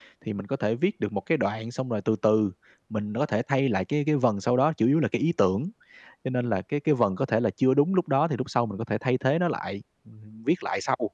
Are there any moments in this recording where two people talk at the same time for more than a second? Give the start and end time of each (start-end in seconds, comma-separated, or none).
none